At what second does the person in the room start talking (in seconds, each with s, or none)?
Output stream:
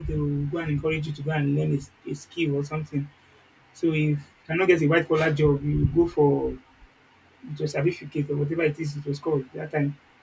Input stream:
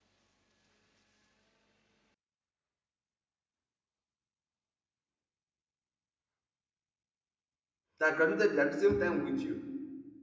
8.0 s